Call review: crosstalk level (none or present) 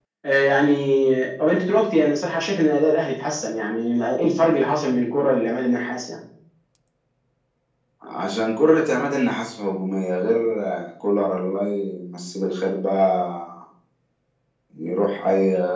none